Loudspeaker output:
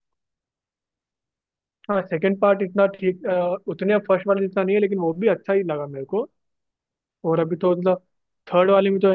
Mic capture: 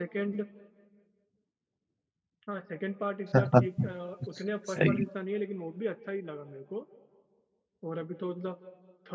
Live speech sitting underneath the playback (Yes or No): No